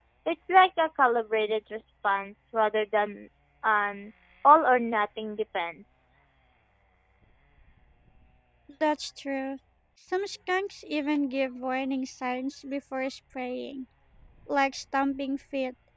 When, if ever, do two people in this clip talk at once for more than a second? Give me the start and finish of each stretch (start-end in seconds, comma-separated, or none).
none